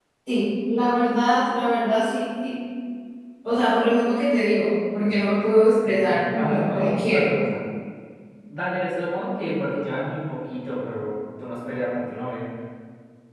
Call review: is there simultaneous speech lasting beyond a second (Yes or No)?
Yes